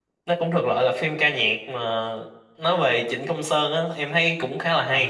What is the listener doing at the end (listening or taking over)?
taking over